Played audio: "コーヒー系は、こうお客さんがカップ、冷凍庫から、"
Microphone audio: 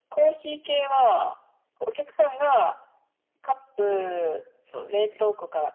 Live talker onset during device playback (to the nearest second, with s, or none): 4 s